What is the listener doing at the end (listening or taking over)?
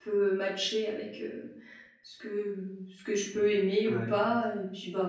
listening